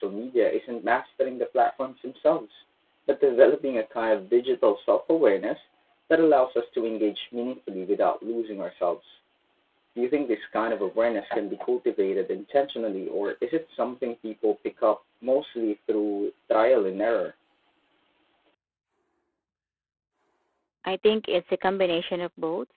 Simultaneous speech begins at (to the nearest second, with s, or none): none